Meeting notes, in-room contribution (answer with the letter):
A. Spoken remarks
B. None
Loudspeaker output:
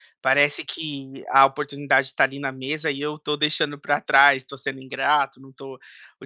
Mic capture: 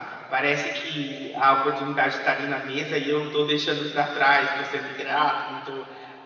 B